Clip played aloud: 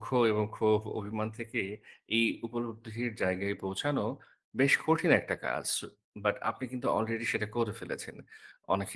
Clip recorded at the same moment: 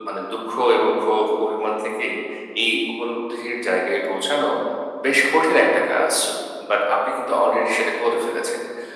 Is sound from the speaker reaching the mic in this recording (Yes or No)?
Yes